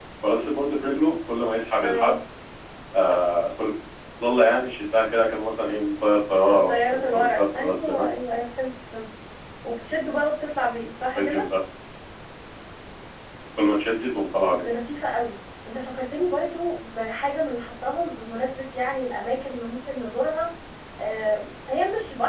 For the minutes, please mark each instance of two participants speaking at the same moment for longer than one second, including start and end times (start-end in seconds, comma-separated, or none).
6.7-8.1